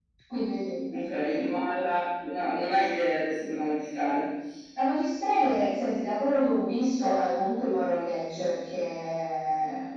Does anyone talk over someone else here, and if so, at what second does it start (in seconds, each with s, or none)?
none